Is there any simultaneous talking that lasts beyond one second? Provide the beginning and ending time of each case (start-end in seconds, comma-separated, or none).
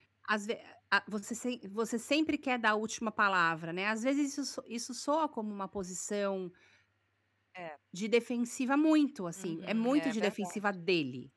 9.4-10.6